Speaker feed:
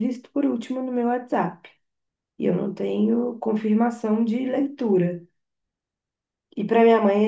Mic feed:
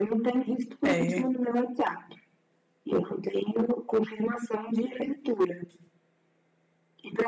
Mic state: both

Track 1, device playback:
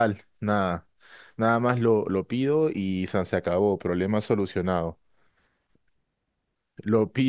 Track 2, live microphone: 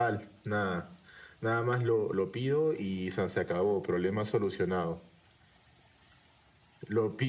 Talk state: echo only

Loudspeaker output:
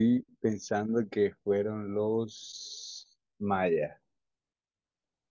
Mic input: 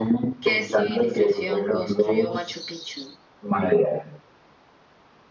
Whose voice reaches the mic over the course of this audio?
both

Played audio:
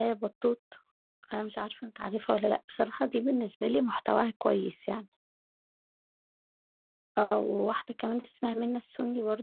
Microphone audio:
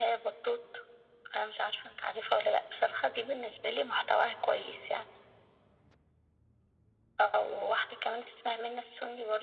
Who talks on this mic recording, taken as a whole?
echo only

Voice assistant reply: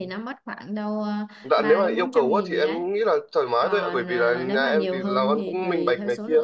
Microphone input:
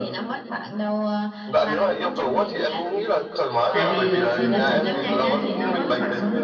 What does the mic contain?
both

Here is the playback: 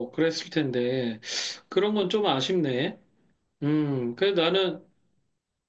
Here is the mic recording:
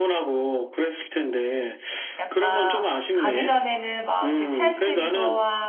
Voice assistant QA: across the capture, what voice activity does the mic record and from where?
both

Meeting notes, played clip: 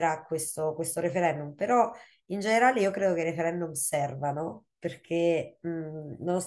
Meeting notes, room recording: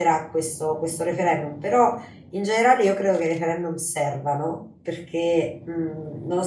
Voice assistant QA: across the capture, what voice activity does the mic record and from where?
echo only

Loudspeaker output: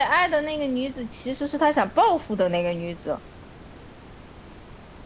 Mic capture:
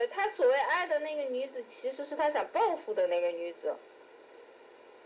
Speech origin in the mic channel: echo only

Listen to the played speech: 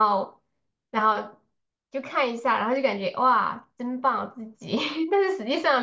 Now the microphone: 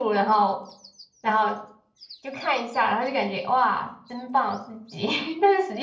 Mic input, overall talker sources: echo only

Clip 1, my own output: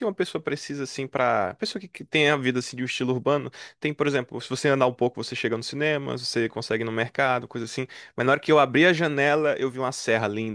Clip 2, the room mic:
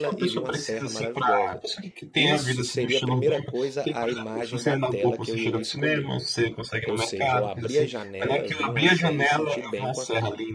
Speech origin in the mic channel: both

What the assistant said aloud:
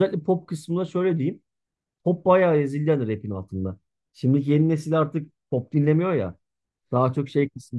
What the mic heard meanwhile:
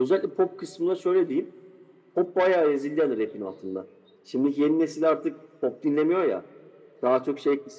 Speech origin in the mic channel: echo only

